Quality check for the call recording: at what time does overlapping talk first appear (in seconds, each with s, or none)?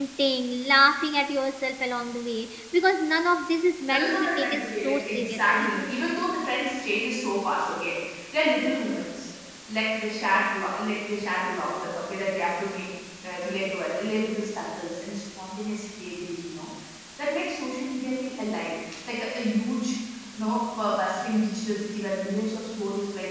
3.9 s